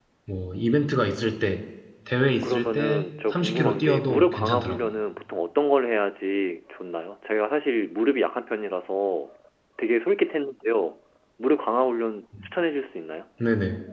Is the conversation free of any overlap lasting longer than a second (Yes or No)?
No